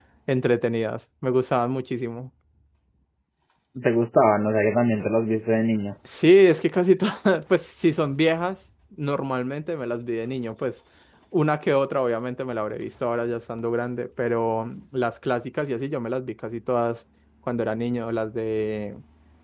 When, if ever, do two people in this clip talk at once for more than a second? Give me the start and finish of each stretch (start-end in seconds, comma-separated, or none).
none